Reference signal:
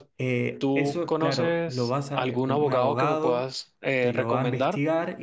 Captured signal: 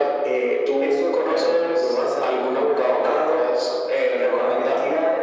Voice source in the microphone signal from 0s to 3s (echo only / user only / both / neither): echo only